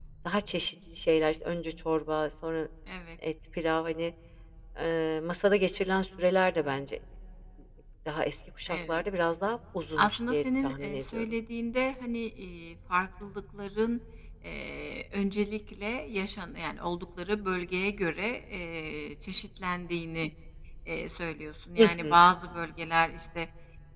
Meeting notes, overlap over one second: present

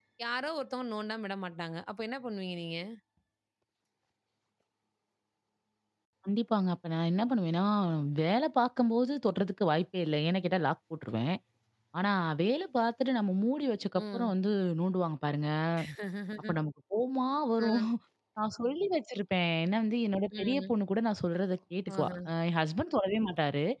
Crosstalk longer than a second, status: none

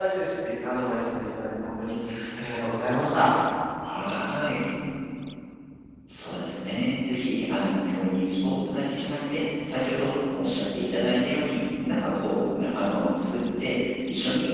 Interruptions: none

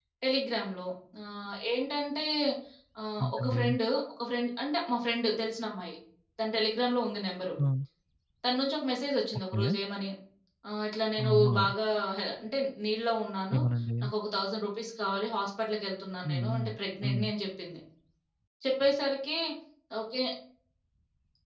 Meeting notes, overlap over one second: none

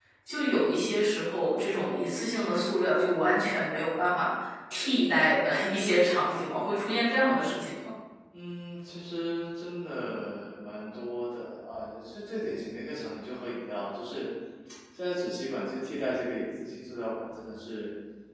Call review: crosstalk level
none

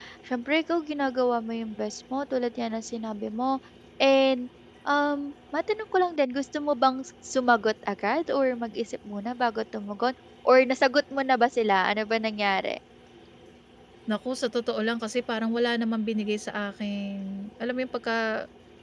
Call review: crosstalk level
none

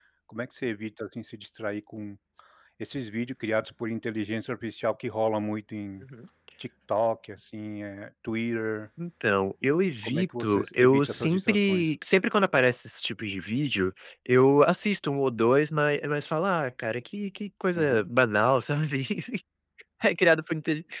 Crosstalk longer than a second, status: present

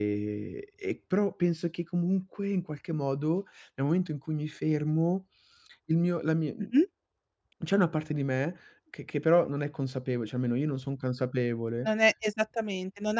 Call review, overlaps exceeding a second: none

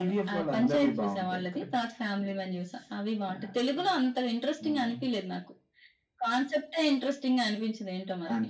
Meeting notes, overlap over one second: present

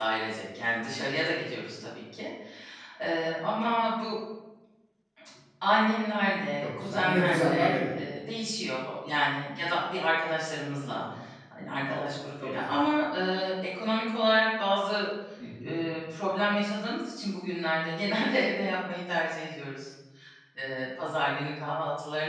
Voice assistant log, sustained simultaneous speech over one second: present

